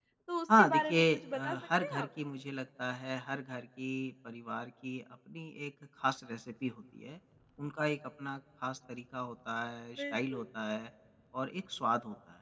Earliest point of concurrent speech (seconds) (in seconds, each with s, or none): 0.6 s